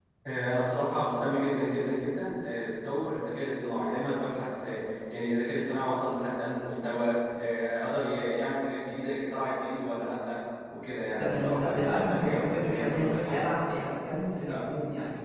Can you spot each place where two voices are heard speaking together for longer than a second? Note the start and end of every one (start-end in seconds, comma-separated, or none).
11.1-13.4